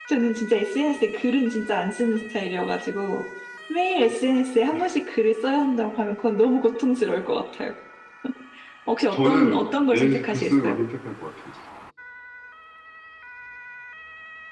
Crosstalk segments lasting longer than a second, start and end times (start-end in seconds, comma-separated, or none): 9.1-10.8